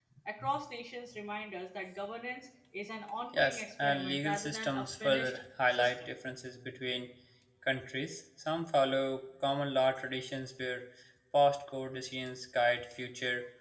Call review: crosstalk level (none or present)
present